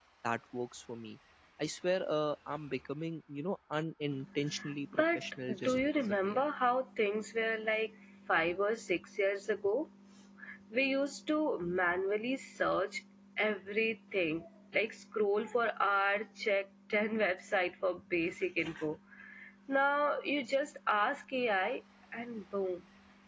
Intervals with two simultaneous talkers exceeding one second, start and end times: 5.0-6.5

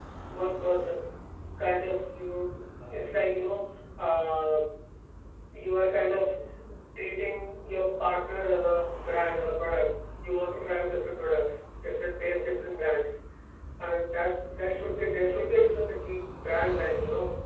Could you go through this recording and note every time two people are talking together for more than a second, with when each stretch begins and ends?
none

